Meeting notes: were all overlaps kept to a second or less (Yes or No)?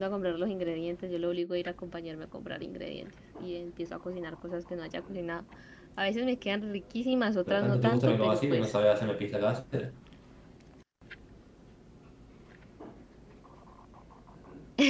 No